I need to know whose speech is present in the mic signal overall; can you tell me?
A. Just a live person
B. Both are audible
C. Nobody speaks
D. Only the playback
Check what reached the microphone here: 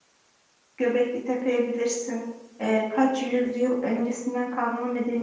A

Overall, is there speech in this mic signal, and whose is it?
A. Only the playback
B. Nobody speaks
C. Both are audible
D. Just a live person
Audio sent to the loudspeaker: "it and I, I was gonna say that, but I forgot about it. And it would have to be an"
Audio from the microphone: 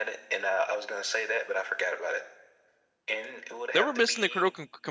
C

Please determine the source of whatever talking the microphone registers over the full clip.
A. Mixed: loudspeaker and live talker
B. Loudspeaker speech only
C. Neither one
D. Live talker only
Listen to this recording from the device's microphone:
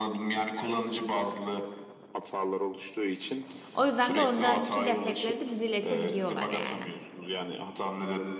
A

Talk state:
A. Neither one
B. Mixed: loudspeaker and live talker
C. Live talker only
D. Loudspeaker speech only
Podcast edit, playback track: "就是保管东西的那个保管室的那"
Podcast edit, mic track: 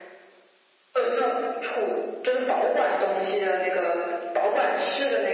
D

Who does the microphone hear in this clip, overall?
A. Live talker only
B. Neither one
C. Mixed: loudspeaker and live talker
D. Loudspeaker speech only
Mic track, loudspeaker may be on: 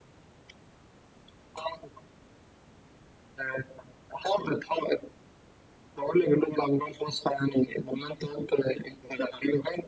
D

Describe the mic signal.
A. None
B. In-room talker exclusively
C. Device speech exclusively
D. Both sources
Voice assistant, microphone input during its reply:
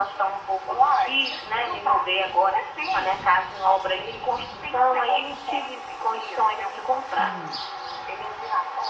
D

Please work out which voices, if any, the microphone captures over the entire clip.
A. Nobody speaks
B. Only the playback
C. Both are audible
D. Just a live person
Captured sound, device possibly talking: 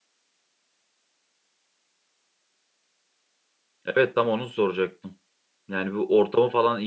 D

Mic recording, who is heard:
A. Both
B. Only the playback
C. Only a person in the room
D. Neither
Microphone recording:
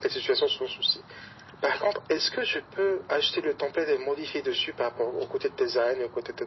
B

